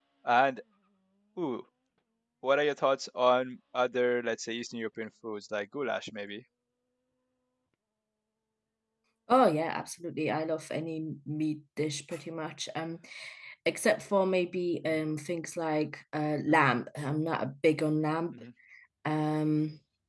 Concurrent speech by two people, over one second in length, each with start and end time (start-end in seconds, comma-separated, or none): none